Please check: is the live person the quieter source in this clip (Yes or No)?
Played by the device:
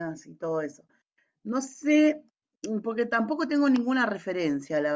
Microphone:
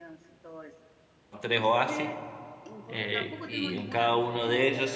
No